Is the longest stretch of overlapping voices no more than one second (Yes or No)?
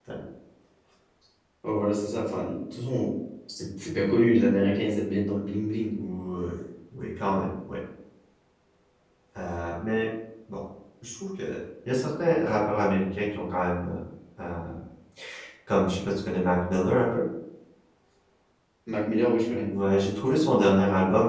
Yes